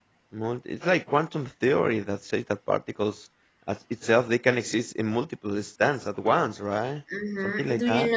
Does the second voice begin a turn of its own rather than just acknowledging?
Yes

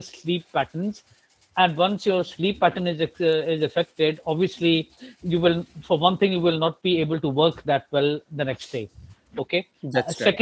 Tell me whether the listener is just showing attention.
Yes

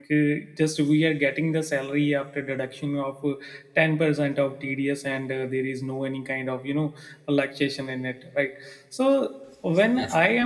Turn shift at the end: No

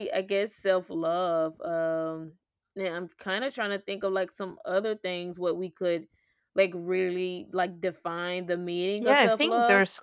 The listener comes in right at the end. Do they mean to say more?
Yes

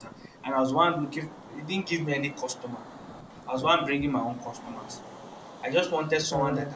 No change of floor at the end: Yes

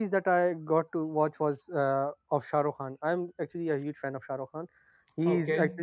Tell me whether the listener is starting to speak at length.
No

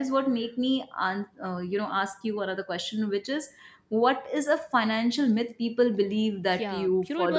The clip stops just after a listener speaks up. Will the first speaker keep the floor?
No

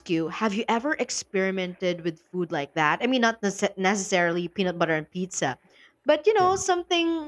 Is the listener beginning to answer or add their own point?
No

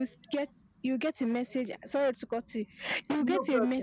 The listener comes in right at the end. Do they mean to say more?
No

